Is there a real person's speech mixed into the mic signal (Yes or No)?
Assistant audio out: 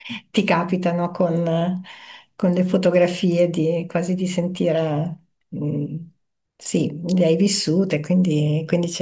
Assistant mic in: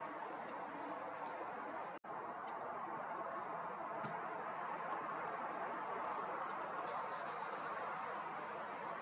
No